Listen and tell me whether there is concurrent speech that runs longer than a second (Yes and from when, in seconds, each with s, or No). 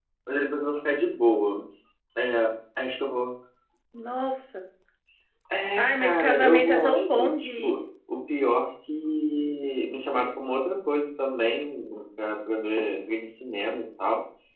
Yes, from 5.8 s